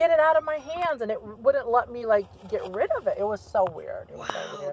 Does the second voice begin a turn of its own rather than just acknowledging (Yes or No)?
Yes